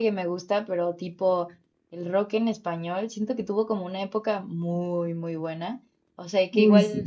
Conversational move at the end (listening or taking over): listening